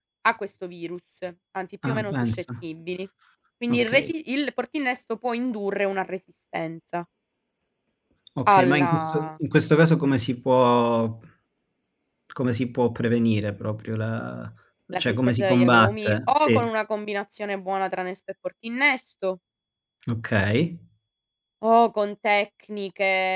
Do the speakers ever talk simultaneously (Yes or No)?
Yes